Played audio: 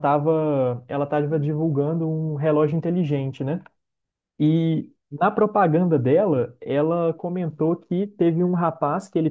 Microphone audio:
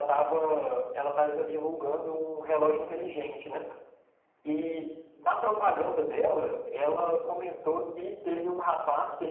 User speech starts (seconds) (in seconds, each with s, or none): none